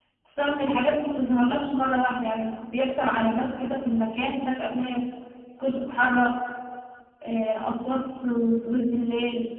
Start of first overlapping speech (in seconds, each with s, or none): none